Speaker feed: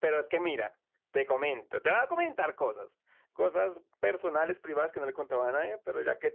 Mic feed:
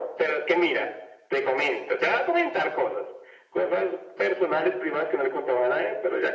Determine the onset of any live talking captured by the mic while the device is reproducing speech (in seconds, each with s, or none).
none